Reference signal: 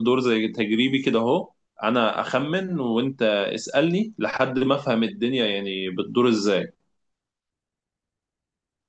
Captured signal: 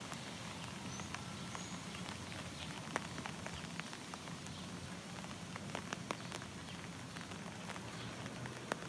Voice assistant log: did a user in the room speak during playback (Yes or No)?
No